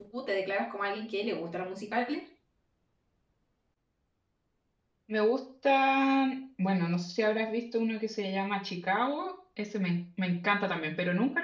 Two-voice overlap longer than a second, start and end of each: none

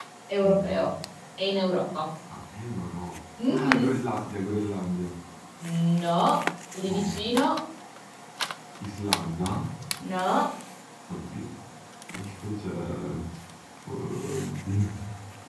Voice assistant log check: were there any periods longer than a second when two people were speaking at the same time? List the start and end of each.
none

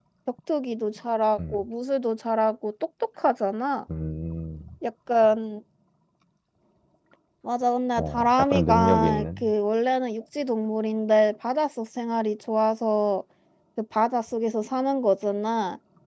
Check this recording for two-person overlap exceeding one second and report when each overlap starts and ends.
8.0-9.5

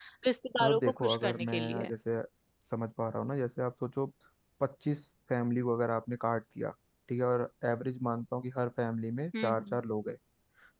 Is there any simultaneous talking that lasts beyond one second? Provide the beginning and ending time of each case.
0.6-1.9

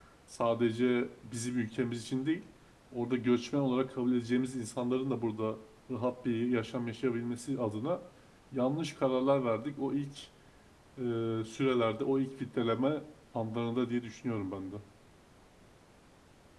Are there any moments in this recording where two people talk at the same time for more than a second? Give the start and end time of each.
none

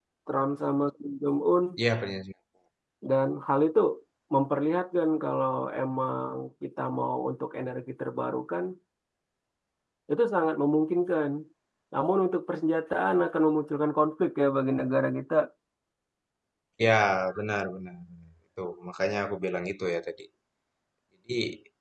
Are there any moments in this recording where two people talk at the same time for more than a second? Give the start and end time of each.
none

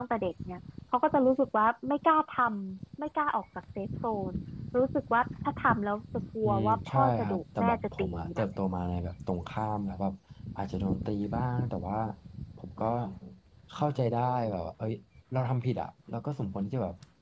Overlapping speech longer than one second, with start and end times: 6.4-8.4

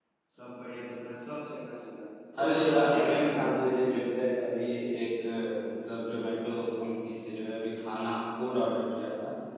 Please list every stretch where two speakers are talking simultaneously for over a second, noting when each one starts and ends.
2.4-3.6

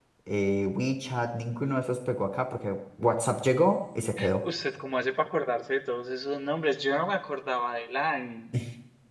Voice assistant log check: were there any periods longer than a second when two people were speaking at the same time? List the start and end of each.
none

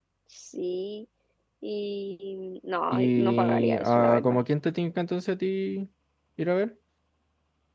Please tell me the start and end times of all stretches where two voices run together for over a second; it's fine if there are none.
2.9-4.4

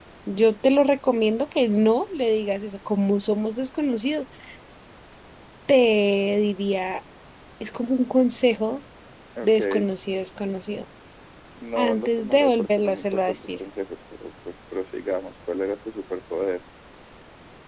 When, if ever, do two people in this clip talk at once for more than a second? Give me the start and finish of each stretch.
11.8-13.5

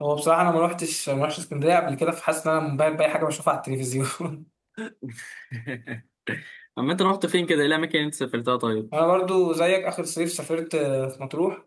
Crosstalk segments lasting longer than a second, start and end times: none

